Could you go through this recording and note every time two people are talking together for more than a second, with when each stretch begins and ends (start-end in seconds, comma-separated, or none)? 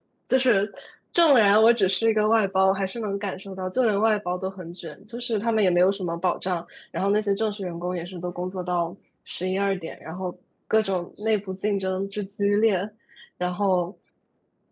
none